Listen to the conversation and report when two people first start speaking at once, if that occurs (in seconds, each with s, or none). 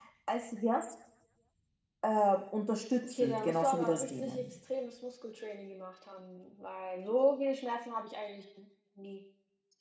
3.0 s